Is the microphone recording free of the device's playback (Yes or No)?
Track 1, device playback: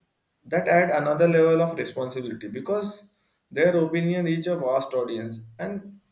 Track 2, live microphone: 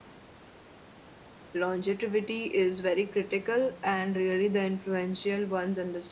Yes